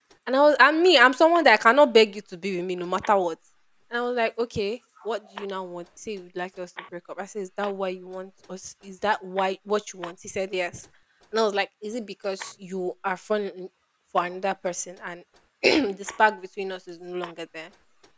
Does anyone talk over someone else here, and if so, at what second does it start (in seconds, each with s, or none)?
none